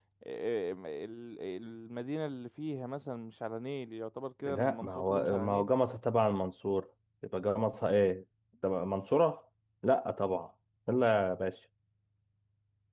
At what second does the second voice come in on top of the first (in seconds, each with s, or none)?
4.5 s